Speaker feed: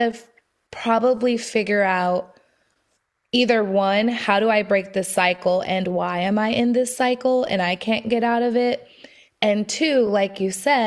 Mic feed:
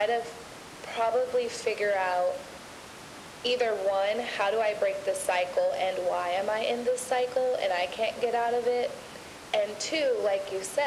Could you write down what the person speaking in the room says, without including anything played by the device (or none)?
none